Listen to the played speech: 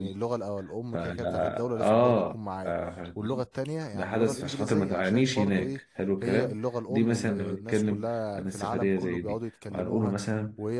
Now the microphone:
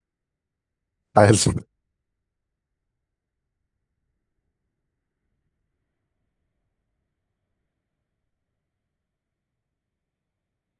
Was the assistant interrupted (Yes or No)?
Yes